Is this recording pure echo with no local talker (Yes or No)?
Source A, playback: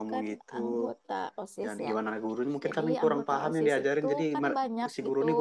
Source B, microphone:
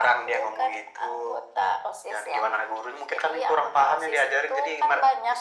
Yes